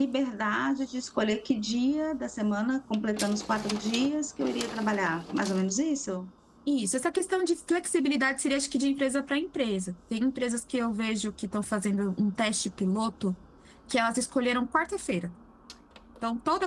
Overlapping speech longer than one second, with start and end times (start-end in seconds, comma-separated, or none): none